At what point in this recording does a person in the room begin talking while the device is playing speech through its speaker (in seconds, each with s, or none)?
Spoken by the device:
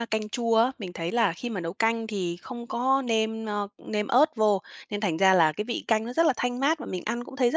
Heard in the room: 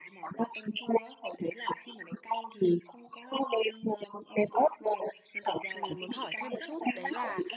5.8 s